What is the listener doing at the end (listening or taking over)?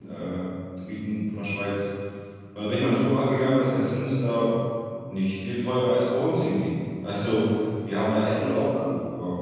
listening